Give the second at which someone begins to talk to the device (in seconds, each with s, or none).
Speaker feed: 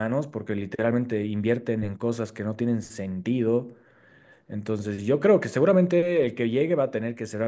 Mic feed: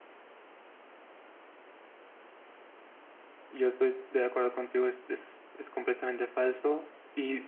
3.5 s